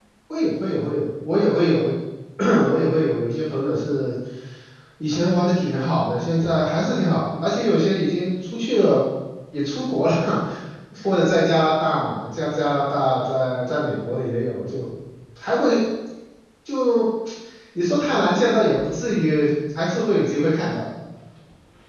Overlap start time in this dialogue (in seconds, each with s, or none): none